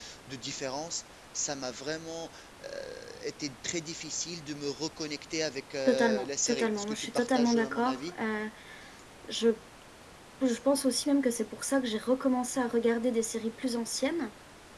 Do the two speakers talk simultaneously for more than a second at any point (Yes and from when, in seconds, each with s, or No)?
Yes, from 5.8 s